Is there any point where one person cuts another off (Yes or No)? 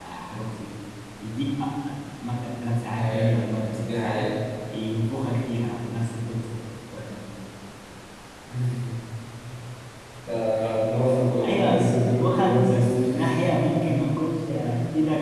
Yes